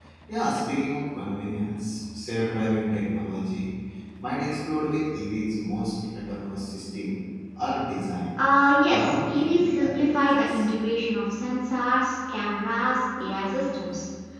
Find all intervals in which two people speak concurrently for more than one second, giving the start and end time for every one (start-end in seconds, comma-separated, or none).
8.9-10.7